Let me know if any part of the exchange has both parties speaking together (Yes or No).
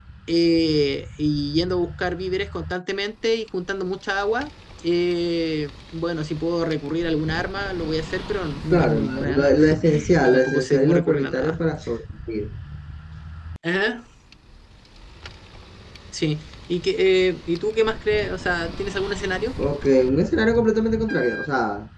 Yes